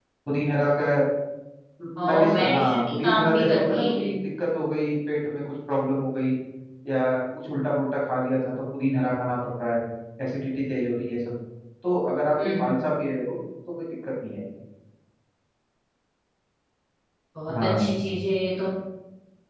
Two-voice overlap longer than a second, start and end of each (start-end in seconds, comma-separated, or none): 2.1-4.1